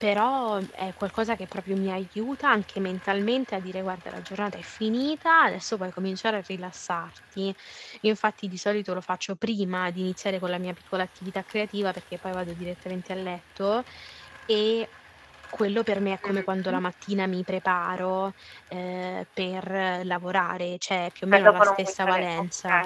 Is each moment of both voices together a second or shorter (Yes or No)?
No